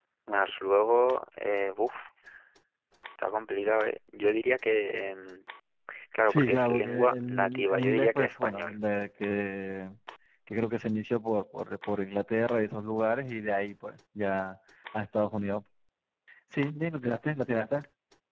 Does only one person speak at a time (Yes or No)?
No